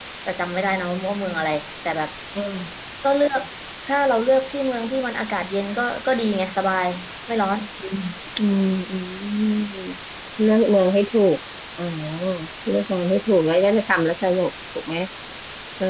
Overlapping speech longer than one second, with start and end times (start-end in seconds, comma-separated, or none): none